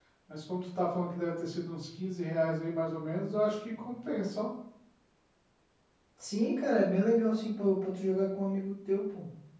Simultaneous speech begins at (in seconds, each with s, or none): none